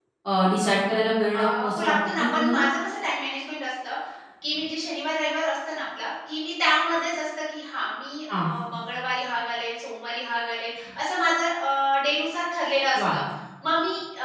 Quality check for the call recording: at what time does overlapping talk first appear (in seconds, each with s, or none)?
1.3 s